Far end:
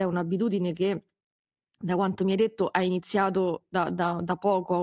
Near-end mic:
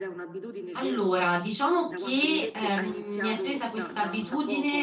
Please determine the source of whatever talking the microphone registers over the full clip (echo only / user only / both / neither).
both